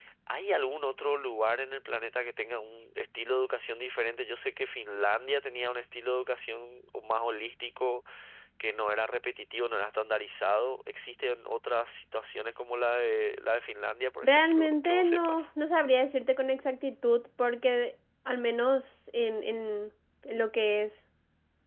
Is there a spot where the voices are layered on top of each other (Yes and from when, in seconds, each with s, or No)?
Yes, from 14.2 s